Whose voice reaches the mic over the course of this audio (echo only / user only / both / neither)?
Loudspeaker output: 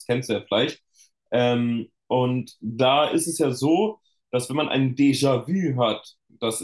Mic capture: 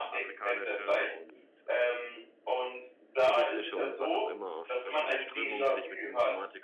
both